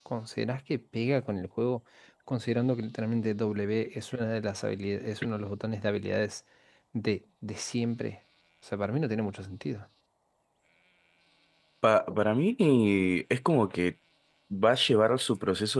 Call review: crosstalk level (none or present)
none